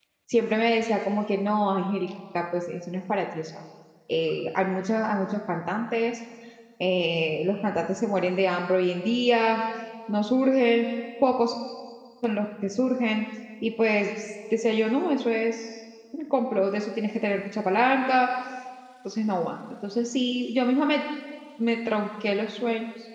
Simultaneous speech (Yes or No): No